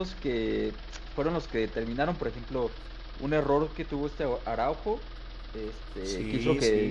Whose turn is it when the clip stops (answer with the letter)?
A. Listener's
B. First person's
B